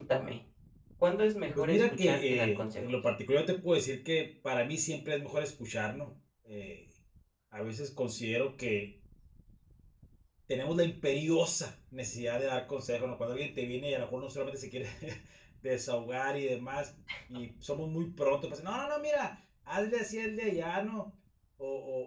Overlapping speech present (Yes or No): Yes